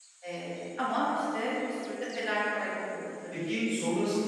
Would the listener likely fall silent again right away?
No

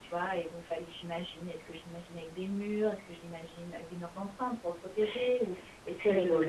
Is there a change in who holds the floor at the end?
Yes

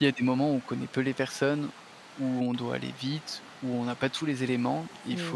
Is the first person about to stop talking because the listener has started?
No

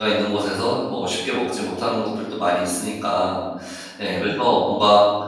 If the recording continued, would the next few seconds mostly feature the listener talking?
No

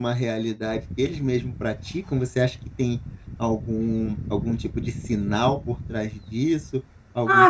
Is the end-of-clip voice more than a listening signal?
Yes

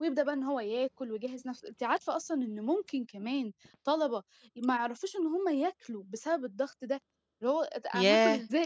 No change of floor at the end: No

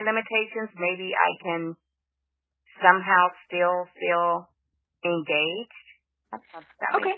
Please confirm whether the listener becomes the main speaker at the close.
Yes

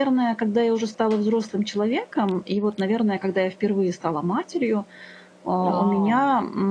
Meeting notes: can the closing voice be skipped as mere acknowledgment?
Yes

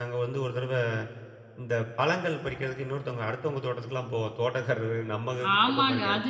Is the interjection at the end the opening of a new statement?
Yes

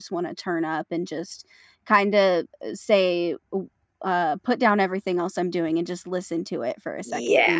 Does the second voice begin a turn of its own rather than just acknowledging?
Yes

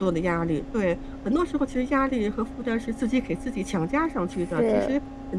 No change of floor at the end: Yes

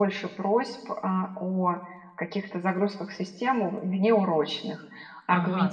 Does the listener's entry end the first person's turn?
Yes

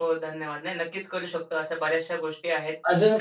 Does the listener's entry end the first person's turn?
Yes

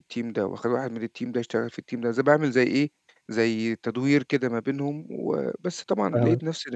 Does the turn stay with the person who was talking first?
Yes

